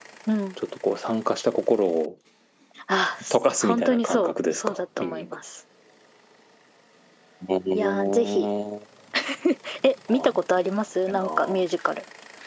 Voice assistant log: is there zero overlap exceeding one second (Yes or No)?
No